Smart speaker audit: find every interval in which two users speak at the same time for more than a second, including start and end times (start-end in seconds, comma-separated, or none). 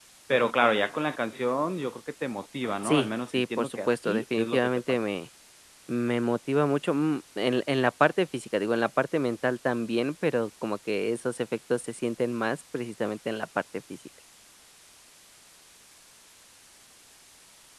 2.8-4.8